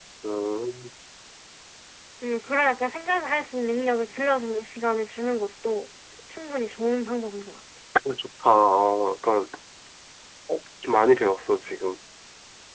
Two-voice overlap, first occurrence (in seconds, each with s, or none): none